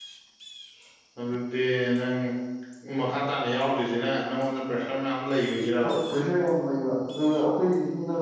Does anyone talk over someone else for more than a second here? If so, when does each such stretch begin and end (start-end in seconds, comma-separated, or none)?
none